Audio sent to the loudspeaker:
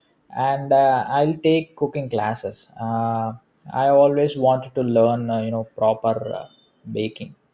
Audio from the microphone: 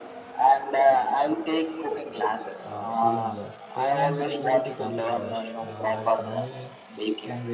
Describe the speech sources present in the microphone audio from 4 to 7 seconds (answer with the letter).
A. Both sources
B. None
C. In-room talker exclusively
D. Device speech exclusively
A